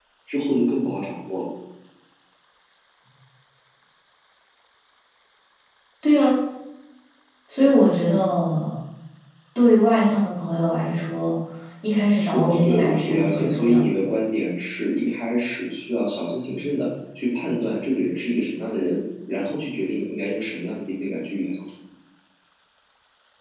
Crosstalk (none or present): present